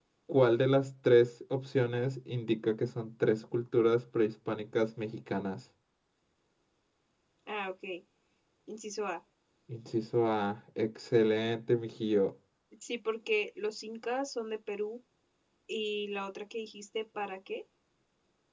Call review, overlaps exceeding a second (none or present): none